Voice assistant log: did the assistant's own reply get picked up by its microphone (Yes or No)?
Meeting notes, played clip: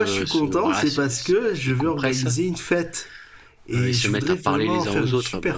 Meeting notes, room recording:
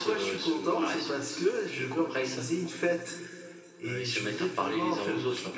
Yes